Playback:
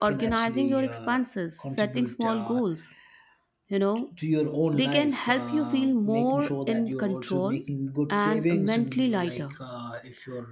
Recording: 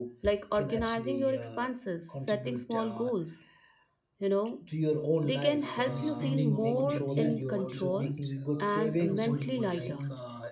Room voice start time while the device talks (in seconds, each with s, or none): 5.6 s